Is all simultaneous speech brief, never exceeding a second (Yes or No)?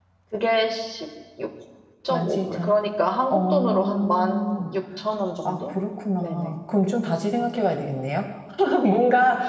No